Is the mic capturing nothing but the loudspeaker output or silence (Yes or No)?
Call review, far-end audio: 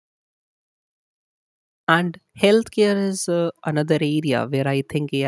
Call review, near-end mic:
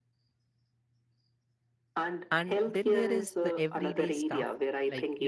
No